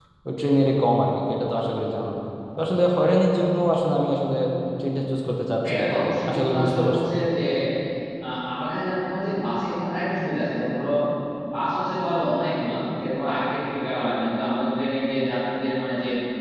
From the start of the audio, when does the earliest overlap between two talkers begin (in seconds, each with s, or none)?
5.7 s